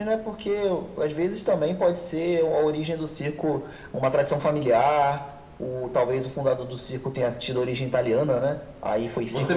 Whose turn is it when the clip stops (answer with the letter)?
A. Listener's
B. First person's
A